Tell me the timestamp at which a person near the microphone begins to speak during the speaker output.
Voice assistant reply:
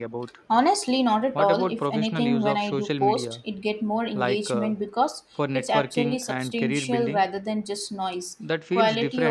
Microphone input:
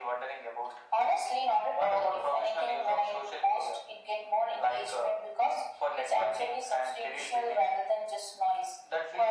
none

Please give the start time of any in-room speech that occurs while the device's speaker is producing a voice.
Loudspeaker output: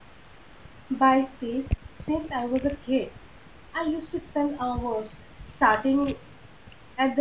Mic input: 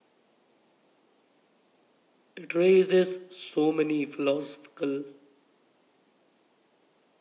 2.4 s

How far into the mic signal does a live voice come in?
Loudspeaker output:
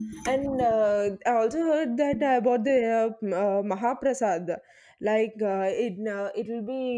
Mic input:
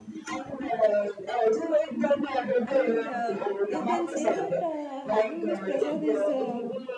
2.6 s

